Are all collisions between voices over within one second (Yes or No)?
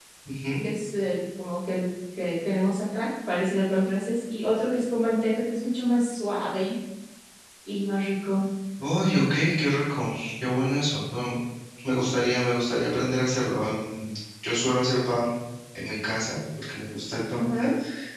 Yes